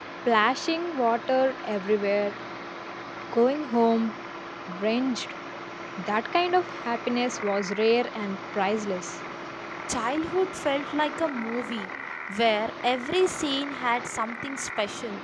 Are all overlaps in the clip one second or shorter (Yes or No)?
Yes